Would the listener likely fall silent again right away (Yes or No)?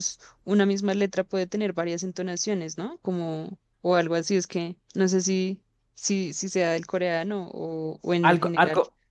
No